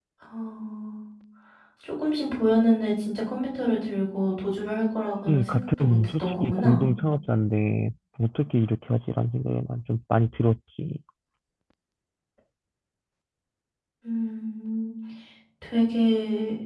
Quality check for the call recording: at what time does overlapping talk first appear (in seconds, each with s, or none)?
5.3 s